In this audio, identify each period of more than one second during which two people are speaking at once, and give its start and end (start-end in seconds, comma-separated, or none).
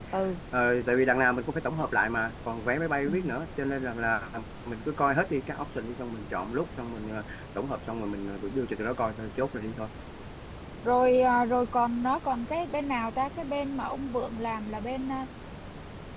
none